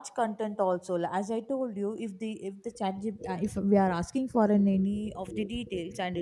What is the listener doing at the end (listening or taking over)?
listening